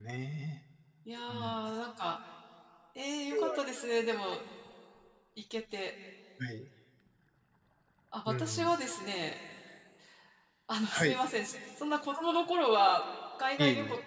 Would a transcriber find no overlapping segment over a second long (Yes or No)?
Yes